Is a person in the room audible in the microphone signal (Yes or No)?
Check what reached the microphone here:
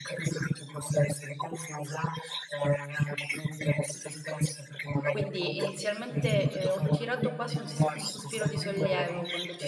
Yes